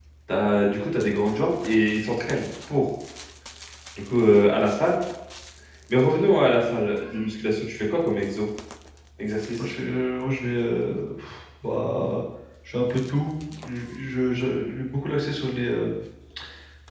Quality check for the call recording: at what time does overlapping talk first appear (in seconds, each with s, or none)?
none